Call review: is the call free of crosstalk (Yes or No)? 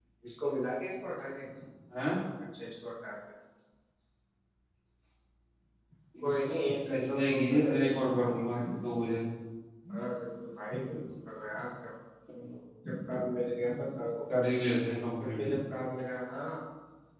No